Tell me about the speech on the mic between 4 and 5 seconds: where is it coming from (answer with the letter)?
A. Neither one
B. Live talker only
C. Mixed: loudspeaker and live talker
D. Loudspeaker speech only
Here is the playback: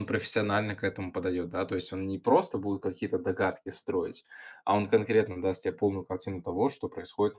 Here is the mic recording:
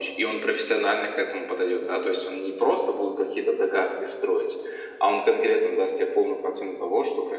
D